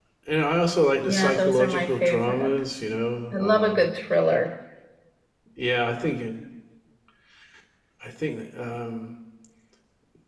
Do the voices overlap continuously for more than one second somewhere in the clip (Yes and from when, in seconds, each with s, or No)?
Yes, from 1.1 s